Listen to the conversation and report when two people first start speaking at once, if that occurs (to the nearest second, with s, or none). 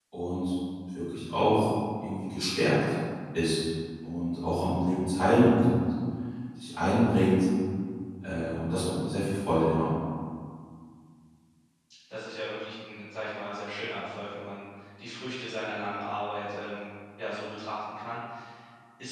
none